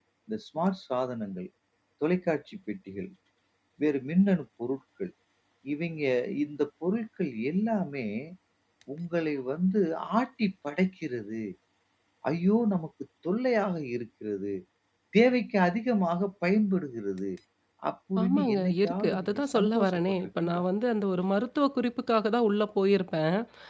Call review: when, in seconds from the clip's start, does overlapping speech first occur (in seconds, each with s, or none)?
18.2 s